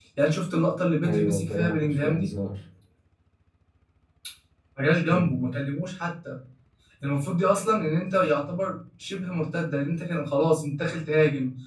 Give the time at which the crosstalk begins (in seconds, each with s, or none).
1.0 s